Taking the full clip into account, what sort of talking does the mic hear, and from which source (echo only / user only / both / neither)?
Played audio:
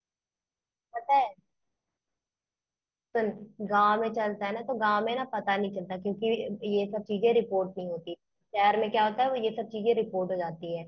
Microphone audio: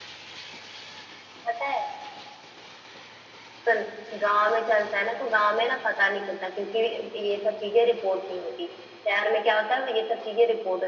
echo only